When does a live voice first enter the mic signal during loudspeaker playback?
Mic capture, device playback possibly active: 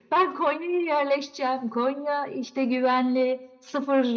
none

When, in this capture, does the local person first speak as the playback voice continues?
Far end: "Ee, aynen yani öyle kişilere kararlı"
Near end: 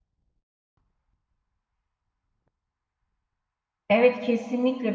4 s

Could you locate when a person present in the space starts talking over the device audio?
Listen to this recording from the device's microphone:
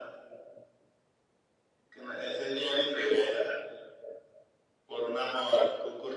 none

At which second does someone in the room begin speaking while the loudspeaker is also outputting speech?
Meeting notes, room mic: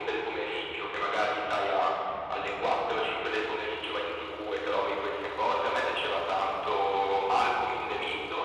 none

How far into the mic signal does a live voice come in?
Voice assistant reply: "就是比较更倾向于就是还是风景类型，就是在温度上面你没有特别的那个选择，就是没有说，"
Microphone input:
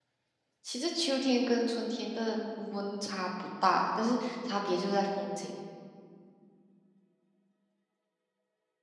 1 s

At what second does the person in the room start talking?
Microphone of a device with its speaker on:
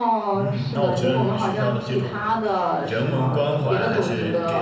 0 s

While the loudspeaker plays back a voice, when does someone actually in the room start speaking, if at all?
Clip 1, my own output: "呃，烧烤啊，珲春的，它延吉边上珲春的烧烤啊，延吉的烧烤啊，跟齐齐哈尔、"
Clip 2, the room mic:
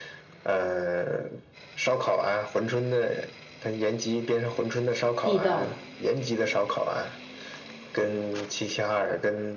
5 s

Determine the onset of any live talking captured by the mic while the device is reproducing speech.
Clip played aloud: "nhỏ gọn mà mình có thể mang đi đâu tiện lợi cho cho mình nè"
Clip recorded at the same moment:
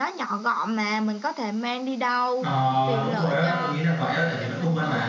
2 s

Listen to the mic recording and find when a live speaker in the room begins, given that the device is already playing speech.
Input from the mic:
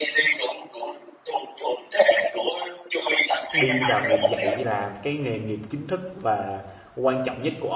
4 s

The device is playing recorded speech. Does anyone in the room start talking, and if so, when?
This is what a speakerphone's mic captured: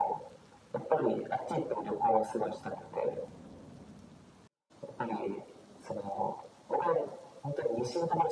none

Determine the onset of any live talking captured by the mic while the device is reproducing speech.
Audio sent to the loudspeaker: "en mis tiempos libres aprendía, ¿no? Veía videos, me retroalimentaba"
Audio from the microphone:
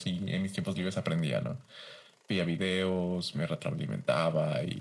none

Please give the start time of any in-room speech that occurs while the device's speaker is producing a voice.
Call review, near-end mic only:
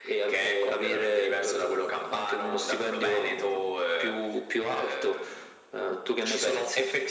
none

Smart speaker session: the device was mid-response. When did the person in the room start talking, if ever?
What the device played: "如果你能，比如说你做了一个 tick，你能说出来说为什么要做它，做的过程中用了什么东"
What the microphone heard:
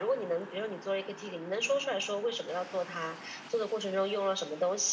none

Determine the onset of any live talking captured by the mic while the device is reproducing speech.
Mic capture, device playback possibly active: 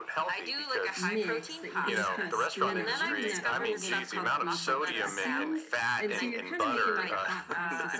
1 s

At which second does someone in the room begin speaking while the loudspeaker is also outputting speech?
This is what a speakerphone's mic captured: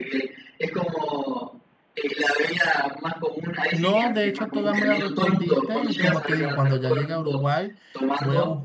4 s

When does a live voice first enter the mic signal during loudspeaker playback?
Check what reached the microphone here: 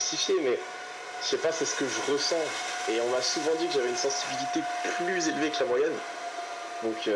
none

